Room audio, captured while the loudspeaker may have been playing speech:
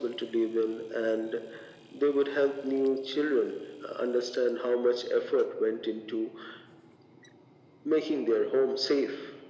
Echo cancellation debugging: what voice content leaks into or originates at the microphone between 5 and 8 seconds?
echo only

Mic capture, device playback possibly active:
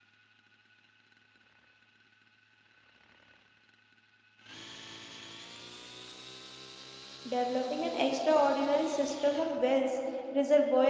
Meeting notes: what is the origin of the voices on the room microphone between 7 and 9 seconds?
user only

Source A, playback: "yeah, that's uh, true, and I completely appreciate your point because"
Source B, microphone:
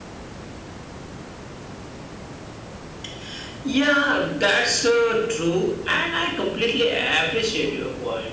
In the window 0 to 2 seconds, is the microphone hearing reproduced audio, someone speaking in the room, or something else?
neither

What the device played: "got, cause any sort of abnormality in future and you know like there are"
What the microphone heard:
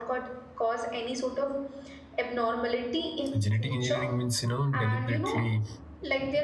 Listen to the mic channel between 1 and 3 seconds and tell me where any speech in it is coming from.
echo only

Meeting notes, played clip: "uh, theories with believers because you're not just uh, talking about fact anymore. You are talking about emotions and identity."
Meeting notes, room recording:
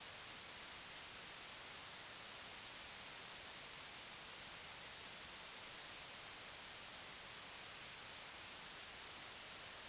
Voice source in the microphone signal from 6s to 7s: neither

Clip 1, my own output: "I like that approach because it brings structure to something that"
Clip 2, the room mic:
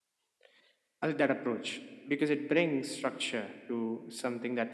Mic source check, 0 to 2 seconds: echo only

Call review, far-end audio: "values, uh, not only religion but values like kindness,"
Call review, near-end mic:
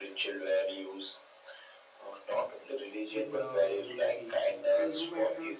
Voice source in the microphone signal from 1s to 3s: echo only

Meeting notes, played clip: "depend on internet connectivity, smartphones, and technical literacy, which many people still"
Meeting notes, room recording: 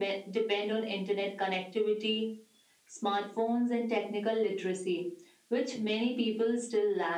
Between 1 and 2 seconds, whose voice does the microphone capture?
echo only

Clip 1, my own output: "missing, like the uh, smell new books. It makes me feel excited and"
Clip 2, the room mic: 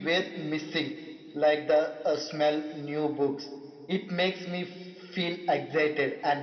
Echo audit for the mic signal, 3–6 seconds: echo only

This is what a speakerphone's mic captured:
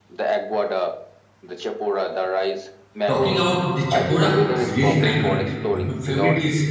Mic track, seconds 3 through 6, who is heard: both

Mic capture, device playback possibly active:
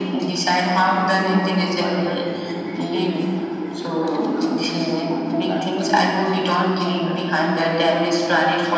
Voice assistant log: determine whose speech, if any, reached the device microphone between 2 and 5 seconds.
both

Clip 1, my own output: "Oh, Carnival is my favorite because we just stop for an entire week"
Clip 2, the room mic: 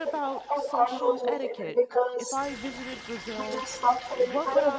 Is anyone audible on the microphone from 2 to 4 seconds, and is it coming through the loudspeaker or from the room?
both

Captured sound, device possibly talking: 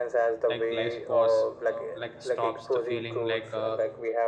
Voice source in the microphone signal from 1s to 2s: both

